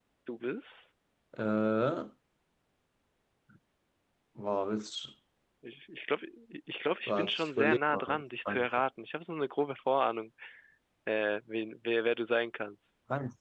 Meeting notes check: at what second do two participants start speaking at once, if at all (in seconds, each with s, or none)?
7.1 s